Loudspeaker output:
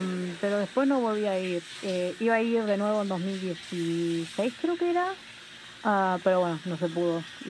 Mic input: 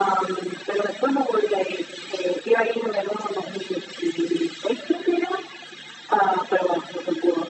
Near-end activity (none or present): none